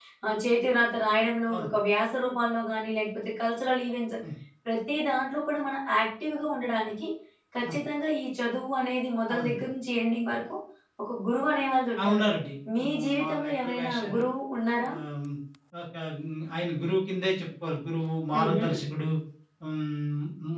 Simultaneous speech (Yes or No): Yes